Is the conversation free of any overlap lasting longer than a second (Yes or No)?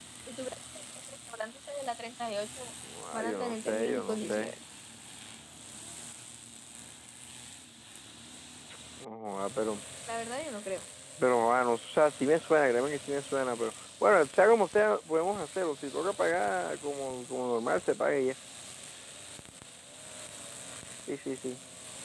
No